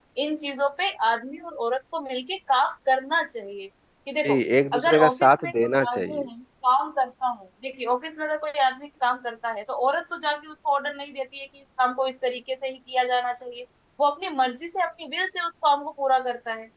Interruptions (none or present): present